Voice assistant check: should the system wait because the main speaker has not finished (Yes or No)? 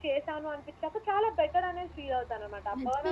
No